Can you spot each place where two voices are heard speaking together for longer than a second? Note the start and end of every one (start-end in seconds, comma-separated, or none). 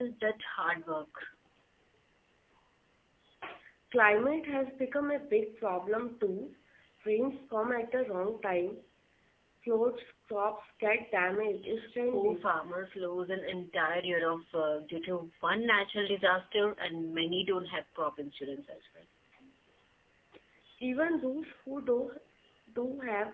none